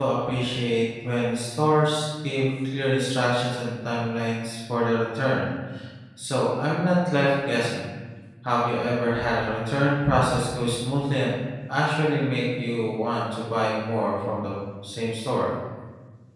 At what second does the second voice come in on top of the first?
none

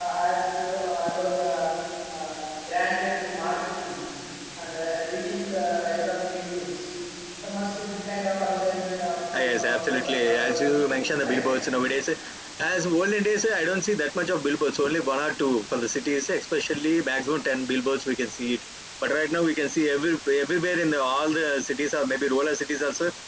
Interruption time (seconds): 9.3 s

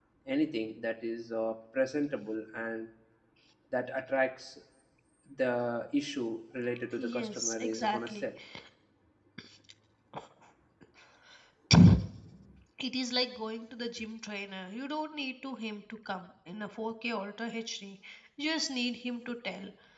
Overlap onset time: 7.0 s

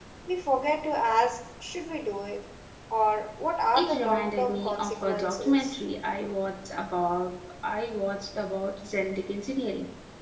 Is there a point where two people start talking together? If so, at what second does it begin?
3.7 s

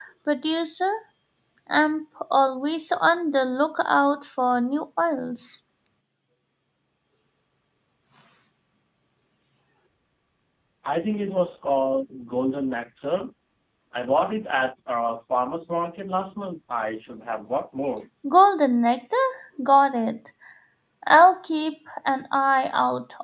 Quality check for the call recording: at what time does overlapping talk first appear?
none

